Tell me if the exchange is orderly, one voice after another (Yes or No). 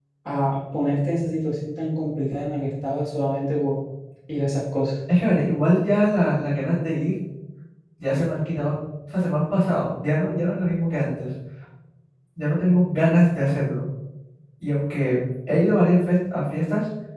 Yes